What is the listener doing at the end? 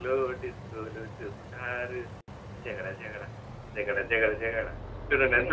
taking over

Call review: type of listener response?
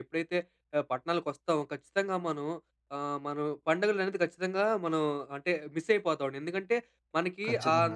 listening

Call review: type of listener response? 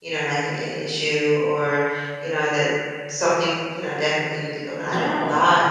listening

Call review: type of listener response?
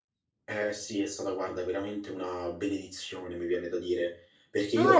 taking over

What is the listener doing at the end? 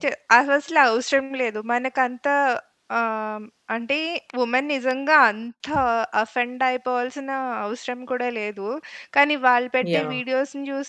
listening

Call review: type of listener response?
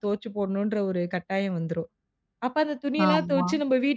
listening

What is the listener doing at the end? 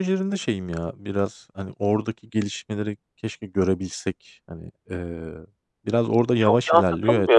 taking over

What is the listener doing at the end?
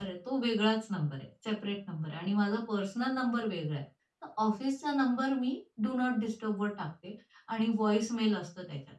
listening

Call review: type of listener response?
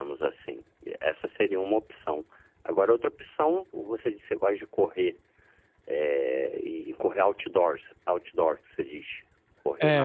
taking over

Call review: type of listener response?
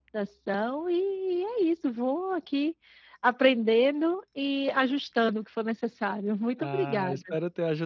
taking over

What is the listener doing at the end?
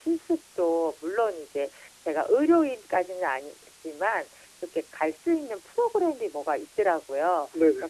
listening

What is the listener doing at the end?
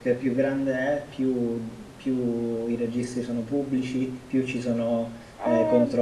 listening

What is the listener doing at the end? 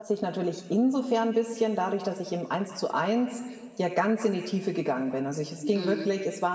listening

